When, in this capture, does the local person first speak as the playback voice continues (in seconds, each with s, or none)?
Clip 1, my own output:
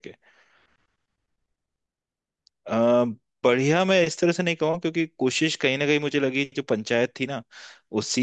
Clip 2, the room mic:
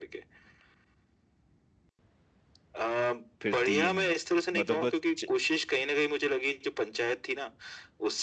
3.4 s